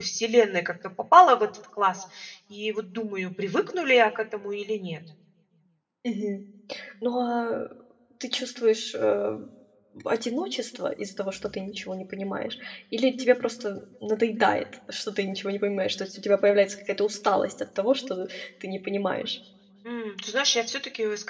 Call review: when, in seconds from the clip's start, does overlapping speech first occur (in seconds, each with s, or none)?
none